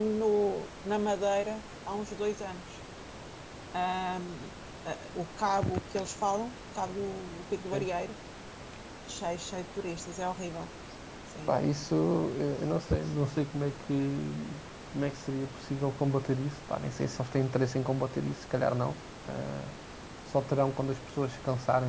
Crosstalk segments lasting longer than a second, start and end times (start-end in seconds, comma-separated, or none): none